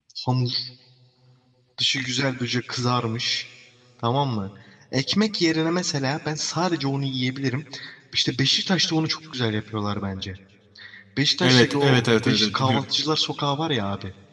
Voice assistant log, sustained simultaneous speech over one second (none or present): present